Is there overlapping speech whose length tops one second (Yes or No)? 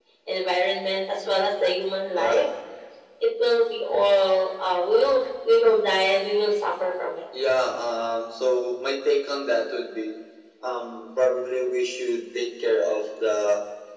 No